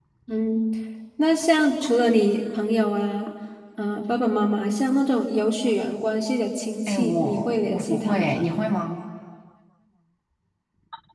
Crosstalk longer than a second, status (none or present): present